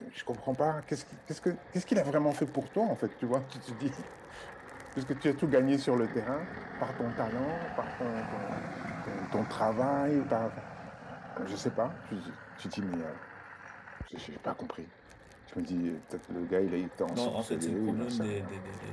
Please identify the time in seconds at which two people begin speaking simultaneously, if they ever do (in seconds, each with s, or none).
17.1 s